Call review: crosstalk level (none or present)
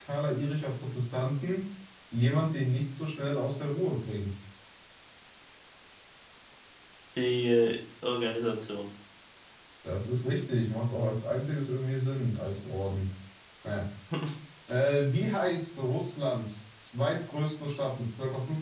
none